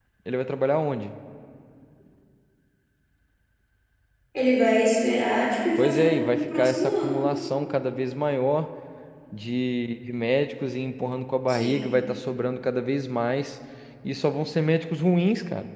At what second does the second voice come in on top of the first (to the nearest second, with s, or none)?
6 s